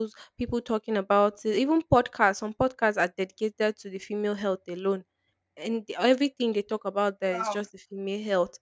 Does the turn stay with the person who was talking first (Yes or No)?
Yes